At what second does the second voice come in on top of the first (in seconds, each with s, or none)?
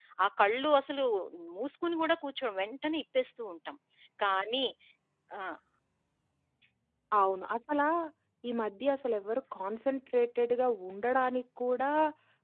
none